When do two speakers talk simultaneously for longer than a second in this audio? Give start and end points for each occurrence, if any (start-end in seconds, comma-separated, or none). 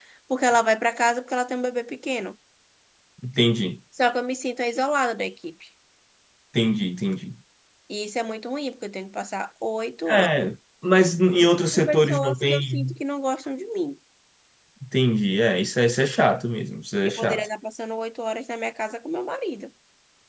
11.7-12.9